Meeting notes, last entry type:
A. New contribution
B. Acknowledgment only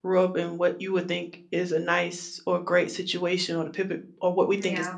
A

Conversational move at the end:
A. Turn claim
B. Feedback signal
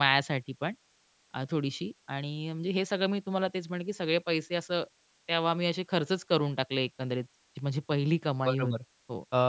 A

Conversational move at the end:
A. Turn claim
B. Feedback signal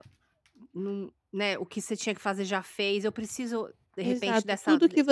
A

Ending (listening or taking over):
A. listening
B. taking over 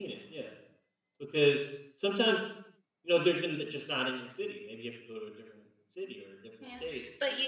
B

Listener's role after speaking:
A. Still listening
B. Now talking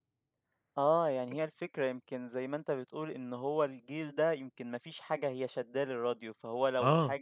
A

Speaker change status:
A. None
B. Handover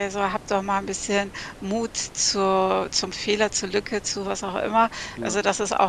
A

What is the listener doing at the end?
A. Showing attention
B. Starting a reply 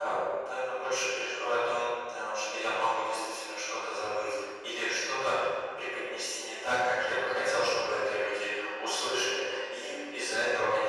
A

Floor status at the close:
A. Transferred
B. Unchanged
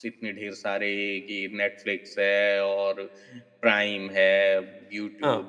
B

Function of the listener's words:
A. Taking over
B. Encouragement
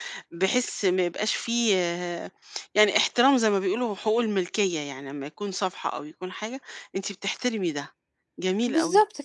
A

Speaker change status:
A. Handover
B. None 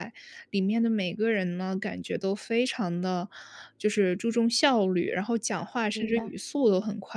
B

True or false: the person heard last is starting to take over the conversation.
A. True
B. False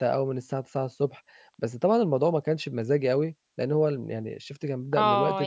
A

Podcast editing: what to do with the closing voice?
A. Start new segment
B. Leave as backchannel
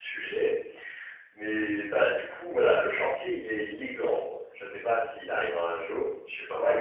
A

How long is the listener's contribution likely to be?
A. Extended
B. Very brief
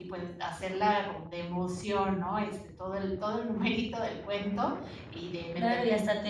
A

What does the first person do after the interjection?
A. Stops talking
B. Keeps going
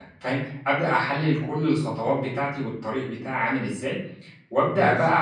B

